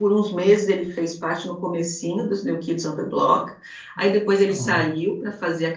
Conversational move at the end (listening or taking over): listening